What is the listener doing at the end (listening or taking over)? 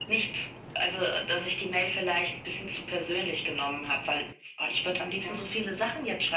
listening